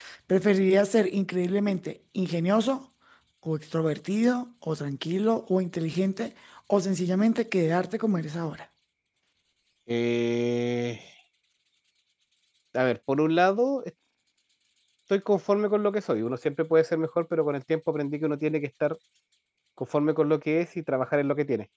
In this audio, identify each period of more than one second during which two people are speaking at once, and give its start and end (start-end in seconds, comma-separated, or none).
none